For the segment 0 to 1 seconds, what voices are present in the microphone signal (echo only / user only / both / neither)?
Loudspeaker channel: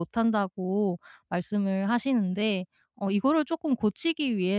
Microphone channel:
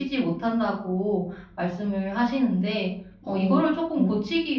echo only